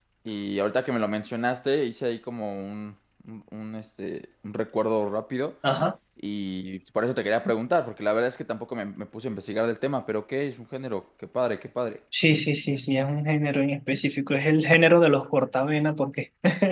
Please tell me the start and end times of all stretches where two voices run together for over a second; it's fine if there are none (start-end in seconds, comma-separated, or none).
none